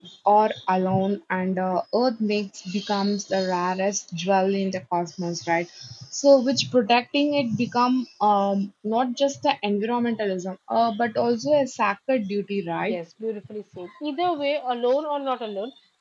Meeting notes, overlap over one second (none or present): none